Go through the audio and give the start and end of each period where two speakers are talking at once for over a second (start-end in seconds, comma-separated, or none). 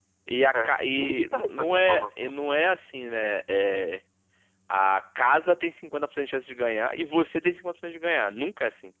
0.5-2.3